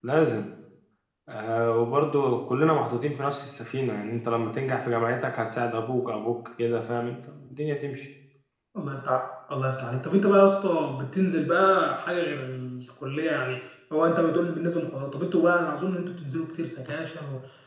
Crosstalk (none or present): none